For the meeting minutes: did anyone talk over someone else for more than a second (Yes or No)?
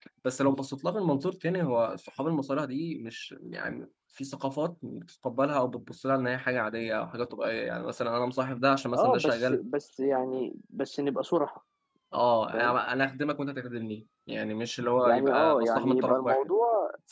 Yes